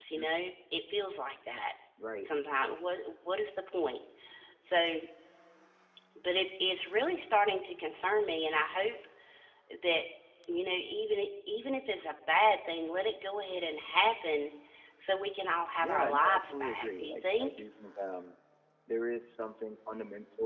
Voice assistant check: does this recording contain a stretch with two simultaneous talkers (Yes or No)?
Yes